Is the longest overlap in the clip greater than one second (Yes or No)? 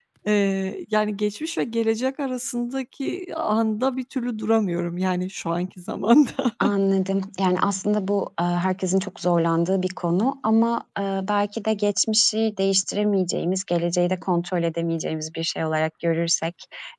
No